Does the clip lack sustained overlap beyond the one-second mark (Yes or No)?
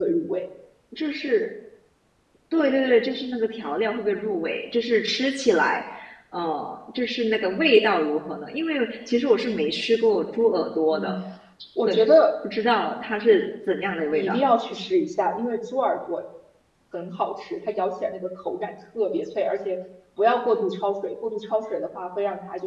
Yes